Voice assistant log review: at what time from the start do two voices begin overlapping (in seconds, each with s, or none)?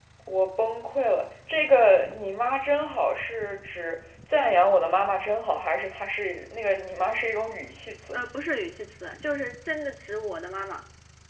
none